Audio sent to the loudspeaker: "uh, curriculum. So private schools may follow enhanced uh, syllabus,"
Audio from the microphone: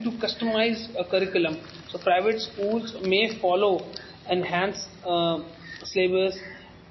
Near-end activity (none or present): none